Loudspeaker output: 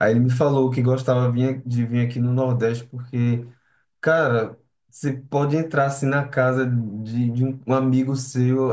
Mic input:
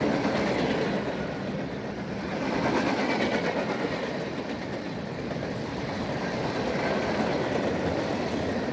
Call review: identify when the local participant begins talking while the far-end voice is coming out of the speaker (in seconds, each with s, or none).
none